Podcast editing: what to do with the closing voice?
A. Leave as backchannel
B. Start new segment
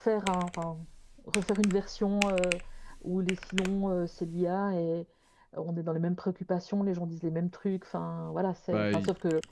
A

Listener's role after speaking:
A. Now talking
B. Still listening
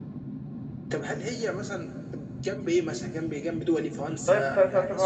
A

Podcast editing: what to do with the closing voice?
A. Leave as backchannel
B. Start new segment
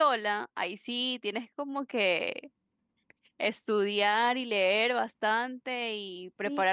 B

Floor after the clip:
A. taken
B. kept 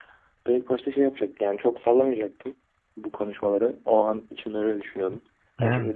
B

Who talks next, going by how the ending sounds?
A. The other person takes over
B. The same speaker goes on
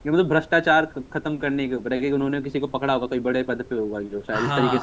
A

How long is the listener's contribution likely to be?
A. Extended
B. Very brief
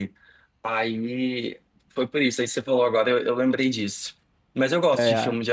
B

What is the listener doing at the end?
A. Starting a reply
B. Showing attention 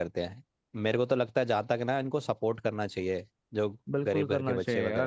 A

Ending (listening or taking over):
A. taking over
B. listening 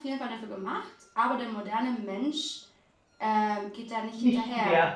B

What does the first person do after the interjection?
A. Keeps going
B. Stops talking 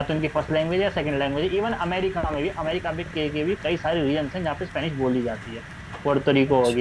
A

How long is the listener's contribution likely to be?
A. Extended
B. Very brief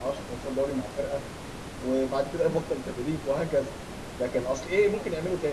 B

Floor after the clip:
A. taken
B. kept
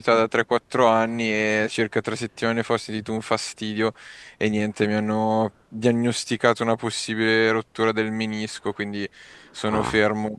B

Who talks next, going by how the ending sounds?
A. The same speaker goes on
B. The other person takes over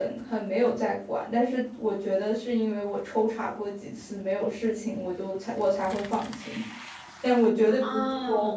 A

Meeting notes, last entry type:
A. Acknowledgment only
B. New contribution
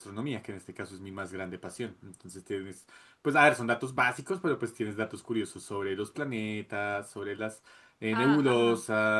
A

